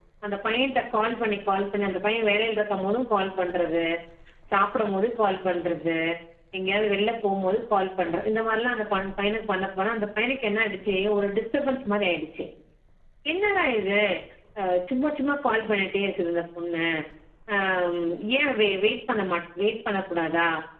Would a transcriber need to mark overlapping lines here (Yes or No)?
No